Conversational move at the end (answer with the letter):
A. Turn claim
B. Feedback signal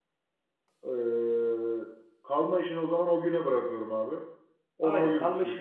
A